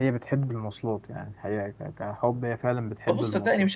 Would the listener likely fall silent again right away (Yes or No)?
No